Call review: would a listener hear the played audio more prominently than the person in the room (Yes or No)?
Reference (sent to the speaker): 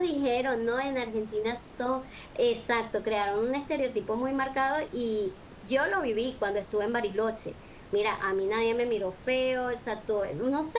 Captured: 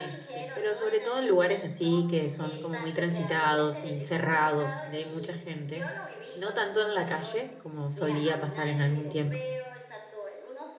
No